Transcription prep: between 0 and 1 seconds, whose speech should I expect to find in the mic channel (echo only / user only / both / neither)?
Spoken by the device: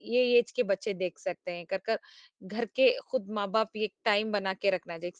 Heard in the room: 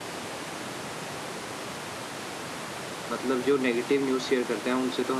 neither